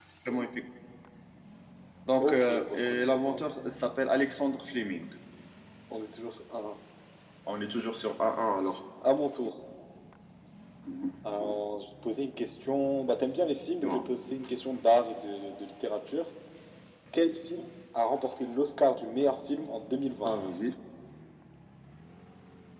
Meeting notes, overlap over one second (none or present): present